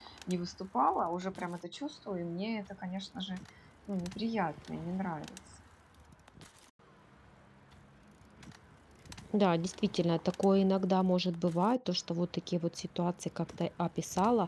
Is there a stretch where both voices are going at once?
No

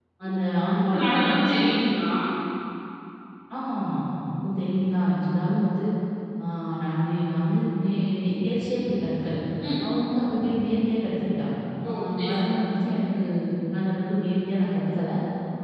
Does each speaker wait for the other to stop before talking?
No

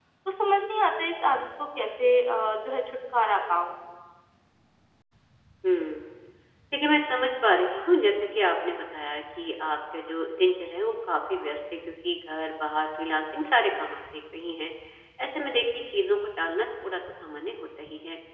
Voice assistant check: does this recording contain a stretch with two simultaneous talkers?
No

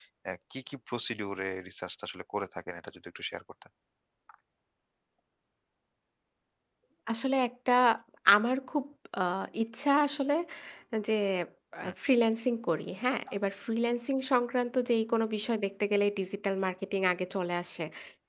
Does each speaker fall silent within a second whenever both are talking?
Yes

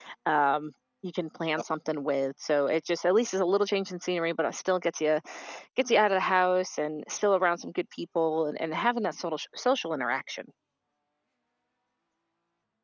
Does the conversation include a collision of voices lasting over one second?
No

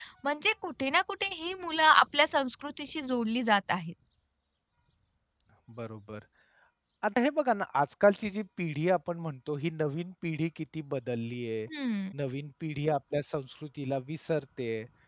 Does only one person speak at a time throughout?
Yes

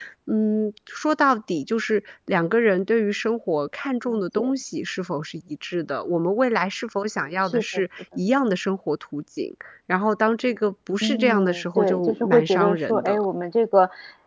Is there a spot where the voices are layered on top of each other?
Yes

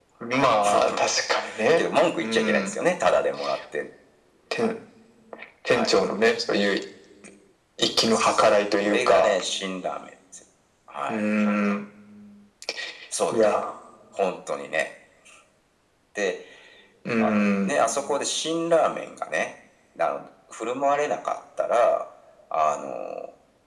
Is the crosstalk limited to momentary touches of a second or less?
No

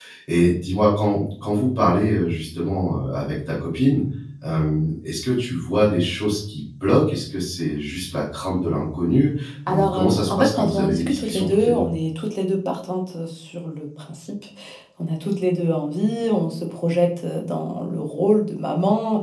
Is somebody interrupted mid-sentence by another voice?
Yes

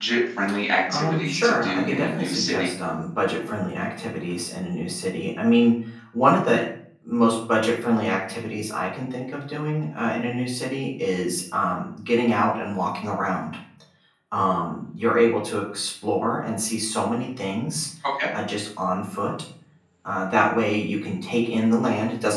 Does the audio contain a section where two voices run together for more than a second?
Yes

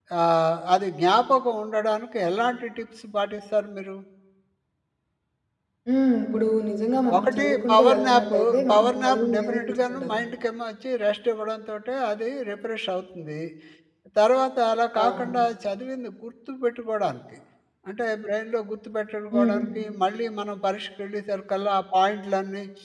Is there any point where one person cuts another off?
Yes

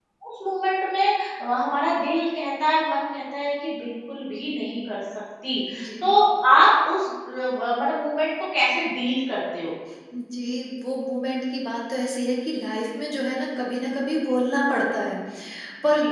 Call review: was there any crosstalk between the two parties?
No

